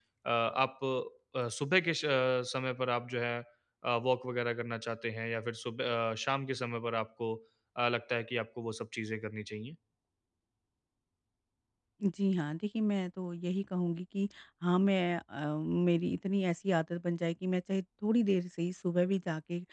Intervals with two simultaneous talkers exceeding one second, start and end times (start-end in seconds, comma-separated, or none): none